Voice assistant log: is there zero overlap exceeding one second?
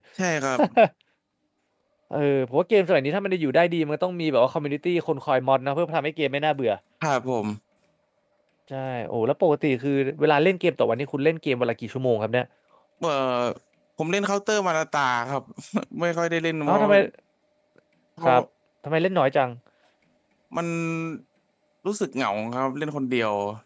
Yes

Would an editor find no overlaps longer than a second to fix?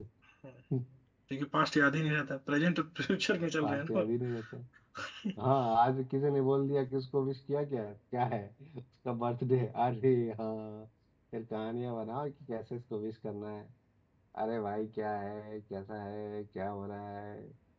Yes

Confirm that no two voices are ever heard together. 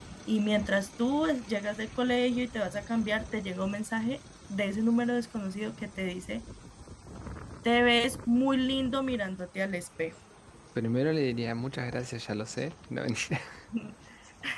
Yes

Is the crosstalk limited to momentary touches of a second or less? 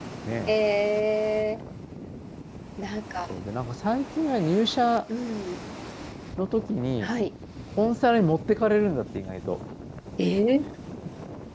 Yes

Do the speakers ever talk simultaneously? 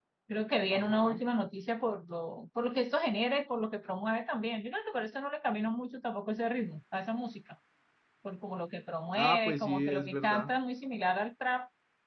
Yes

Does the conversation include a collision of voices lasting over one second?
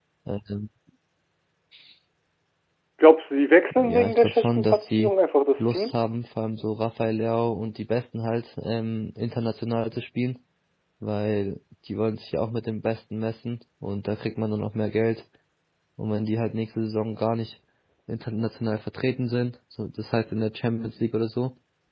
Yes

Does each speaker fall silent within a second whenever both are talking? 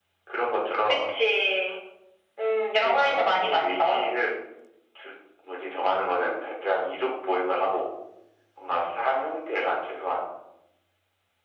No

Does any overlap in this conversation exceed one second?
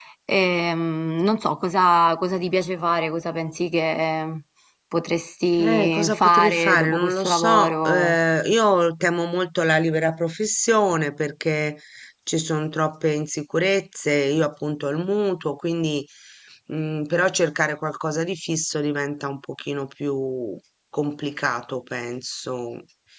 Yes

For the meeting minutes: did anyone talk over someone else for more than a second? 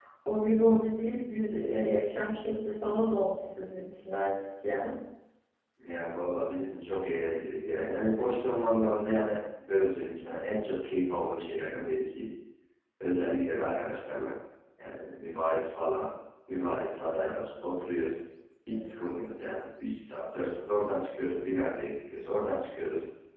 No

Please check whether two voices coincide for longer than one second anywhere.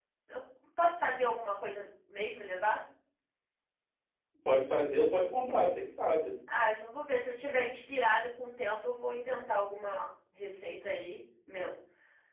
No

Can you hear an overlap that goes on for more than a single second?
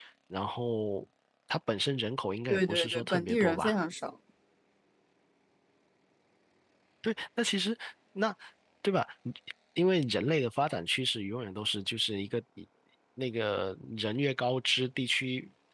Yes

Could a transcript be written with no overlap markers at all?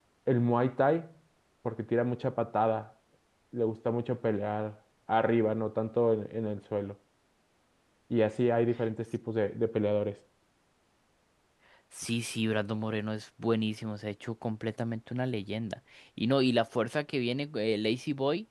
Yes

